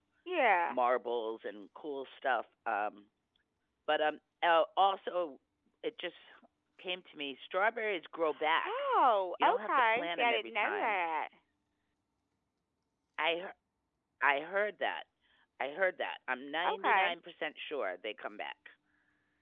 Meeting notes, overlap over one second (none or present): present